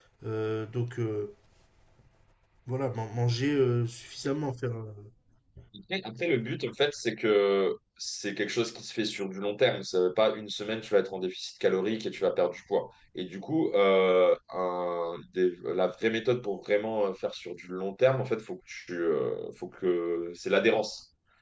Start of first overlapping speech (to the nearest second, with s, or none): none